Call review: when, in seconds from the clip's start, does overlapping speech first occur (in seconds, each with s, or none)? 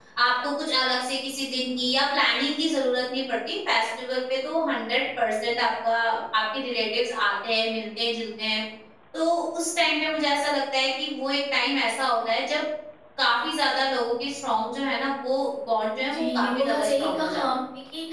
16.0 s